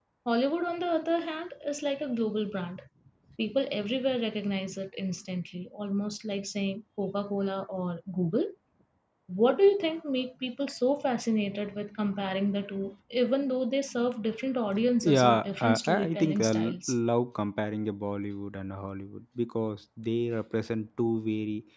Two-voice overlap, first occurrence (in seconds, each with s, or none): 15.0 s